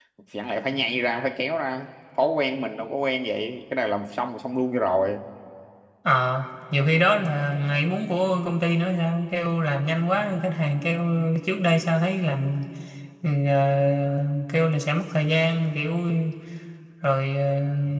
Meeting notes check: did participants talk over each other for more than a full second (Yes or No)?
No